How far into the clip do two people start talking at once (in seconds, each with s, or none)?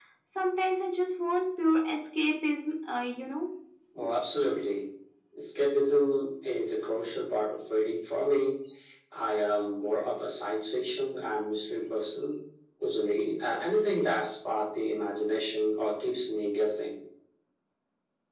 none